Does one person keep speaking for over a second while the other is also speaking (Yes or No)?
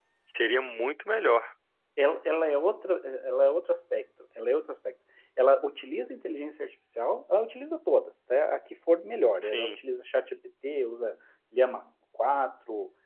No